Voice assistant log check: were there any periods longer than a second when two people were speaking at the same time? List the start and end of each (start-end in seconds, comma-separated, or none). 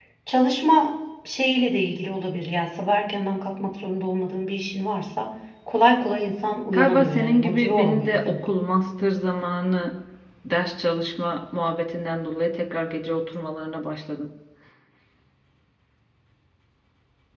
6.7-8.4